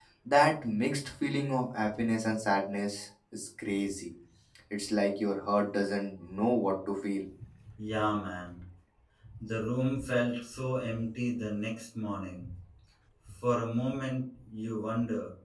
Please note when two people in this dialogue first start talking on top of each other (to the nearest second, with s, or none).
none